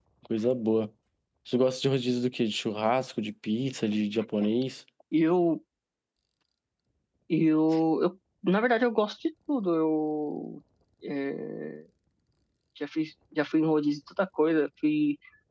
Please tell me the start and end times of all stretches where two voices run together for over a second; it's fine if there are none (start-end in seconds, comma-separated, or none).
none